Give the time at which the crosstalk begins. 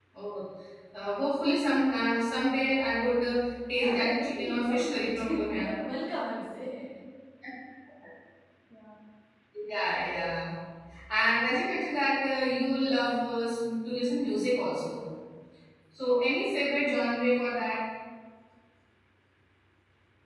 4 s

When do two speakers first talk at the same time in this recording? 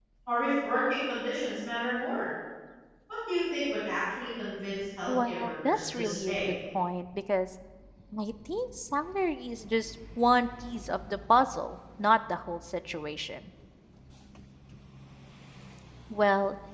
5 s

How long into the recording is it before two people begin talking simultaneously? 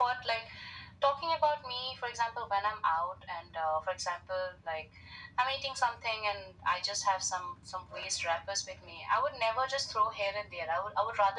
none

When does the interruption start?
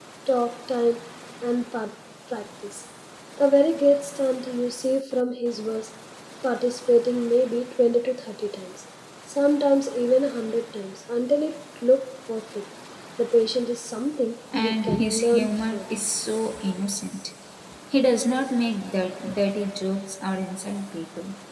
15 s

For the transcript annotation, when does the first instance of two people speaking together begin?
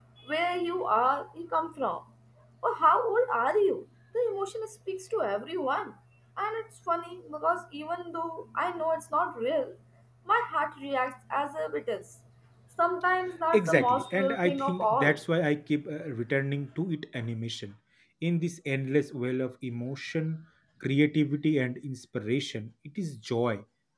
14 s

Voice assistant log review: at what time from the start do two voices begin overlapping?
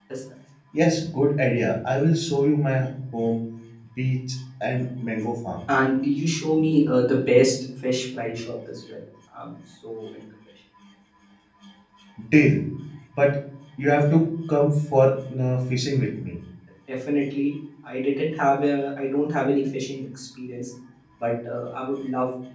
none

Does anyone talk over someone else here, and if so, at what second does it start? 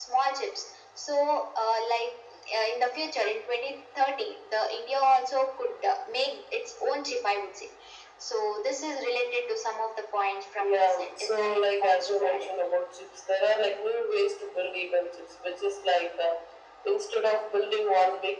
11 s

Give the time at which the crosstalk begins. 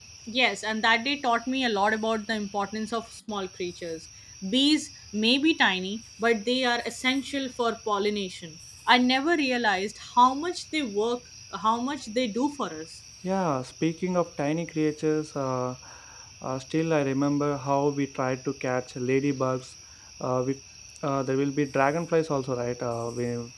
none

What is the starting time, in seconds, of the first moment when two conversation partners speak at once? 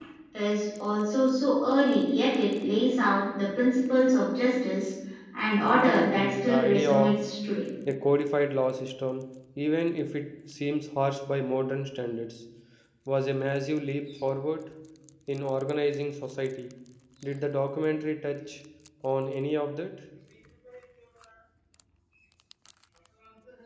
6 s

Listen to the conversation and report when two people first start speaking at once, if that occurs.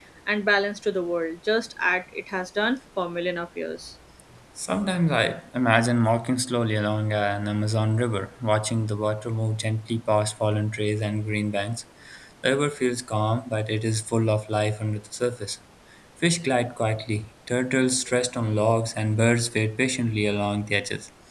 none

